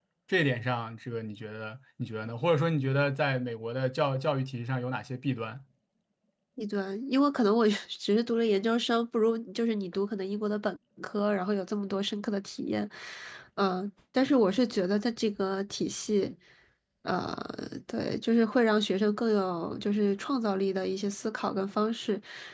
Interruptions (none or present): none